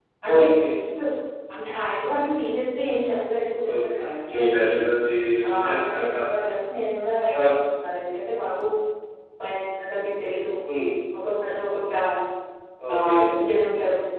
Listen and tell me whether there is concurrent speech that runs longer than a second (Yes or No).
No